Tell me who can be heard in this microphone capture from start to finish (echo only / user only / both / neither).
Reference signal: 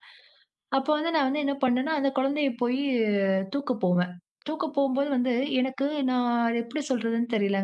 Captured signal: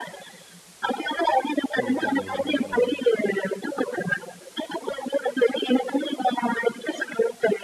both